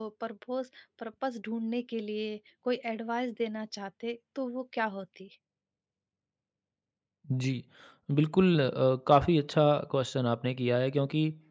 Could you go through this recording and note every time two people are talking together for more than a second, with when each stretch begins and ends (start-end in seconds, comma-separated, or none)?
none